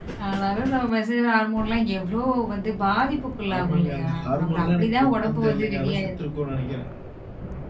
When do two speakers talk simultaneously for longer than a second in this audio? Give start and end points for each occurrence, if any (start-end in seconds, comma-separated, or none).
3.5-6.1